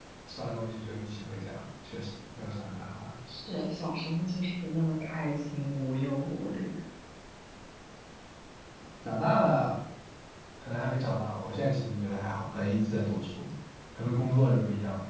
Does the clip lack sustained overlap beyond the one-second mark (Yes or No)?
Yes